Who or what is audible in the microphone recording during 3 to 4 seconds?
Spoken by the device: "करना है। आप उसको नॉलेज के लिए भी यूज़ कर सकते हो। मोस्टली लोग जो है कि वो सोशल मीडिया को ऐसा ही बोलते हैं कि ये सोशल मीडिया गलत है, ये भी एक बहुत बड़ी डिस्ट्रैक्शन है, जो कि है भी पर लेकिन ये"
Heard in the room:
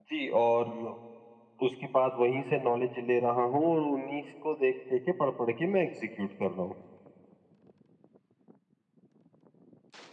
user only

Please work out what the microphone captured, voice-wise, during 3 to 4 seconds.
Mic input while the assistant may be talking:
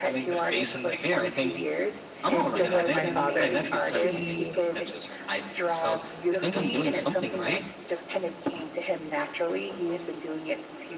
both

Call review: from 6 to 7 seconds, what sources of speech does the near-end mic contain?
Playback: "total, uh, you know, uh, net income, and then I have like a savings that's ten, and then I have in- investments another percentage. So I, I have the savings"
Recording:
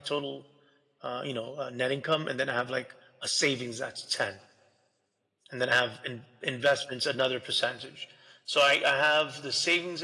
echo only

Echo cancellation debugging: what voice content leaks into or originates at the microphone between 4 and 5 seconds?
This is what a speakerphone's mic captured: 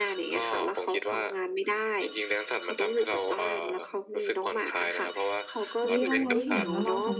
echo only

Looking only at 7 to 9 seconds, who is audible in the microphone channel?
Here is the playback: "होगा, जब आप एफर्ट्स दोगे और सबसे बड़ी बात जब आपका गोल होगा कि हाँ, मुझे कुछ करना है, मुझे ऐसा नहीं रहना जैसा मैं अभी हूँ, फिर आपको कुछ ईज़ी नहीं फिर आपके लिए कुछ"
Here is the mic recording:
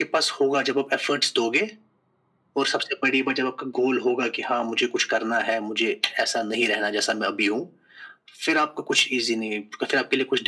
echo only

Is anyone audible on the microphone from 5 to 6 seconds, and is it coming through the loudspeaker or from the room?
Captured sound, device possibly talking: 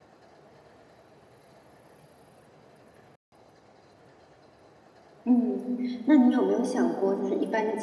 user only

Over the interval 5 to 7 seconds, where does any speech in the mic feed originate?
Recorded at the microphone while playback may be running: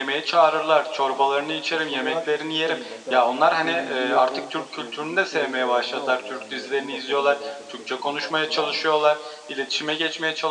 both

